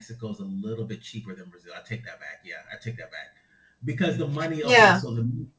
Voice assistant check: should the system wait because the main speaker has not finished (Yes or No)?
Yes